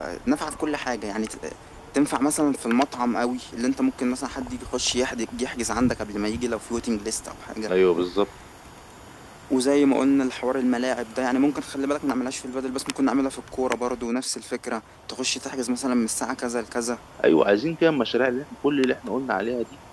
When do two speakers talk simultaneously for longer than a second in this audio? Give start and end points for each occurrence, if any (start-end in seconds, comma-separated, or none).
none